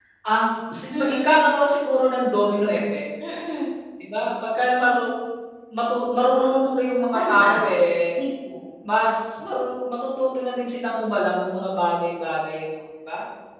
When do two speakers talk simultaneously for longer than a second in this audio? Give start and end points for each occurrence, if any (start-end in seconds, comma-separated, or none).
none